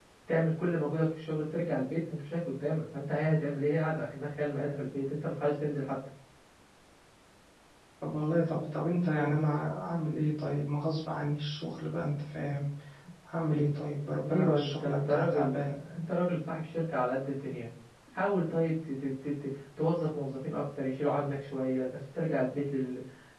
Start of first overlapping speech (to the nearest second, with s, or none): 14 s